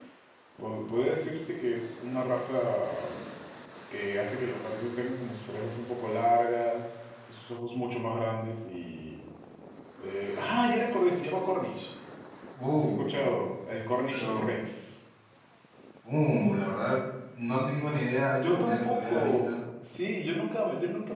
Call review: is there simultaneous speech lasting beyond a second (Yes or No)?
Yes